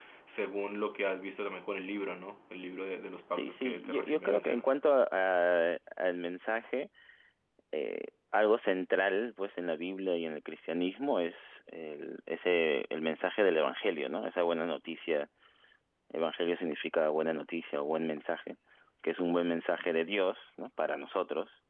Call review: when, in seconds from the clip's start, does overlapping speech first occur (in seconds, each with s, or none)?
3.4 s